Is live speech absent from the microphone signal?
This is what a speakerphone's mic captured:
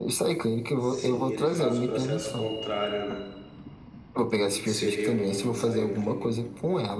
No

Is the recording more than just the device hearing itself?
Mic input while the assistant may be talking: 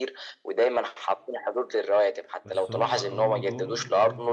Yes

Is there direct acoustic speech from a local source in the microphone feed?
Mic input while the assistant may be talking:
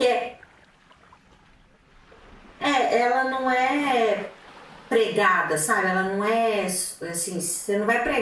Yes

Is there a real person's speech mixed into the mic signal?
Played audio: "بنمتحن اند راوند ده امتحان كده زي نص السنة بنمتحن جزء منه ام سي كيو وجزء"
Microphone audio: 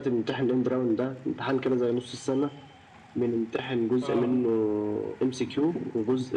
Yes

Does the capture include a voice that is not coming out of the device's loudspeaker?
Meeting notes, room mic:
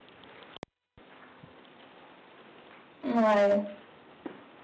Yes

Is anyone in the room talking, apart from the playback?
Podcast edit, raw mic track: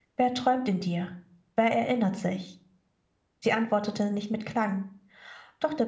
Yes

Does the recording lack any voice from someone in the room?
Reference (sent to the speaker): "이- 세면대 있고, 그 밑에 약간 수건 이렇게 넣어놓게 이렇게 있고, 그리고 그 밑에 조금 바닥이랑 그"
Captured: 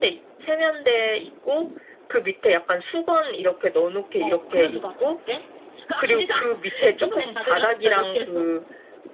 No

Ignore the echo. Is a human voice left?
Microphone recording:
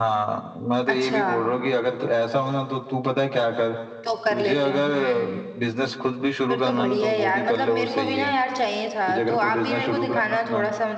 Yes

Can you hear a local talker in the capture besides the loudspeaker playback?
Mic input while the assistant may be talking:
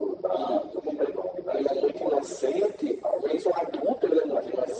No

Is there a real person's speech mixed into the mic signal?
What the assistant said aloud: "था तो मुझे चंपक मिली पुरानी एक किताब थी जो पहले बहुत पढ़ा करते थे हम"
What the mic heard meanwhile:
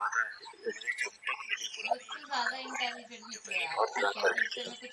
Yes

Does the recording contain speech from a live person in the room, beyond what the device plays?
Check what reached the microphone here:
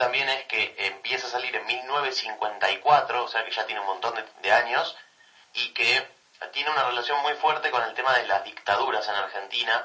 No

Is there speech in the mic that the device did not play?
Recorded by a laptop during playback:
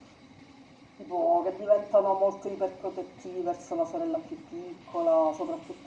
Yes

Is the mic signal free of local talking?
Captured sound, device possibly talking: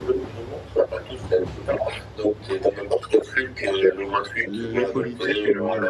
No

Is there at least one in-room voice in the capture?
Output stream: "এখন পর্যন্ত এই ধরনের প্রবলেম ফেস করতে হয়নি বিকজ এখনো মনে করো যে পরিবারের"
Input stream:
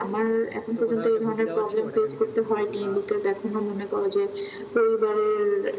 Yes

